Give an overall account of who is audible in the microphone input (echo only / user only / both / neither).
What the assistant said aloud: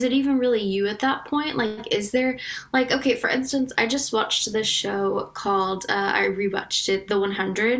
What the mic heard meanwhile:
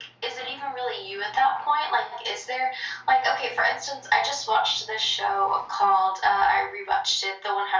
echo only